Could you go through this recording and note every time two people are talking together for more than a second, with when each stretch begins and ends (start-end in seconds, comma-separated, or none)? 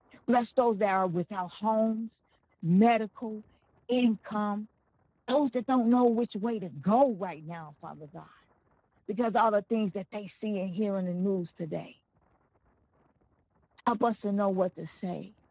none